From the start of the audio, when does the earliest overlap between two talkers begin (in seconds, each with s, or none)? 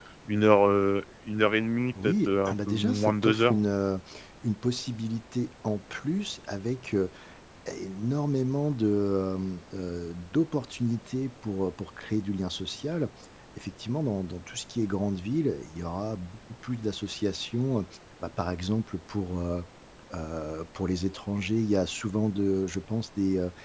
1.9 s